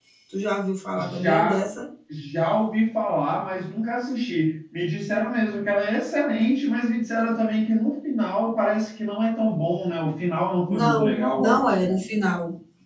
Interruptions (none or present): present